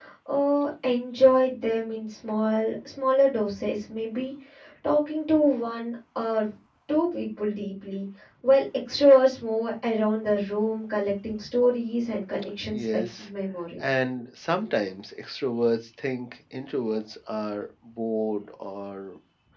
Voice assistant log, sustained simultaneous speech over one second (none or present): none